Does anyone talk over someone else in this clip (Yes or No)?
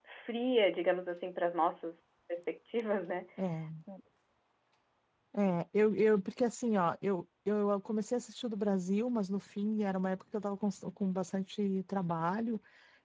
No